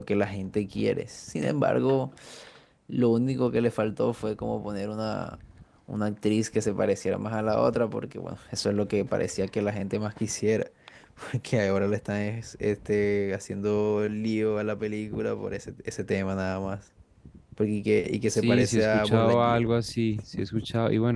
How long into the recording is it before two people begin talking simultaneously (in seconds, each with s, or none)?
18.3 s